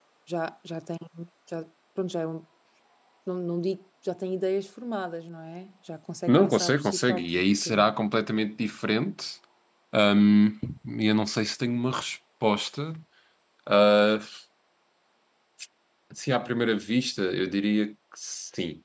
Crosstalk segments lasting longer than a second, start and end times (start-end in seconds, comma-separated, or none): 6.3-7.9